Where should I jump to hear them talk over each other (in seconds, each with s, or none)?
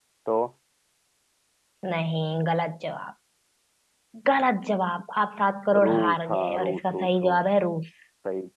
5.7 s